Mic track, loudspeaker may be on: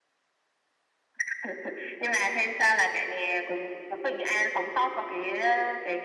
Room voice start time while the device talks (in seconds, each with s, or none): none